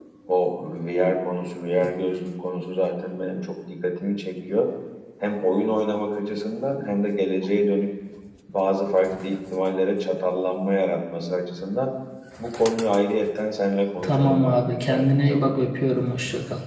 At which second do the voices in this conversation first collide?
14.0 s

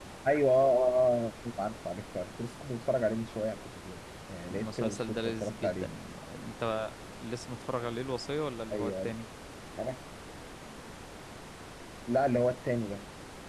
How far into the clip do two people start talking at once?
4.5 s

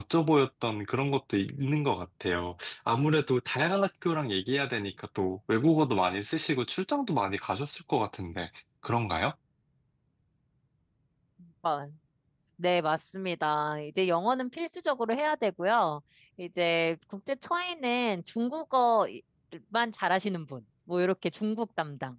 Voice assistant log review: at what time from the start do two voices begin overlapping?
none

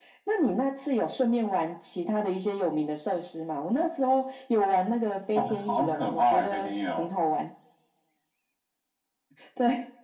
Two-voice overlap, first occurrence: 5.4 s

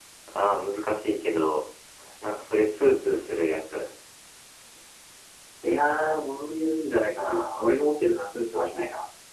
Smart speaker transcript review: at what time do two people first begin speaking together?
none

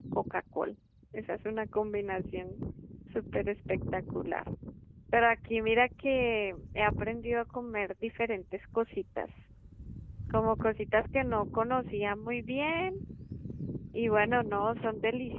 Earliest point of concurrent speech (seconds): none

